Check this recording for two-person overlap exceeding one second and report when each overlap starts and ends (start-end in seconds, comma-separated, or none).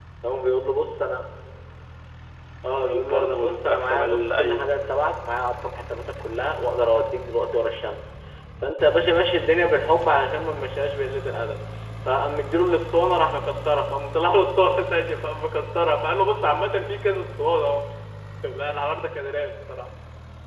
2.6-4.6